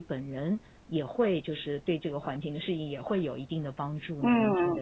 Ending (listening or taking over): taking over